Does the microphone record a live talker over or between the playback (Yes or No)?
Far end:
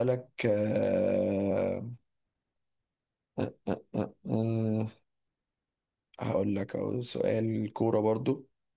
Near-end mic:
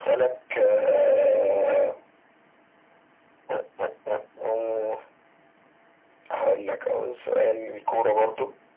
No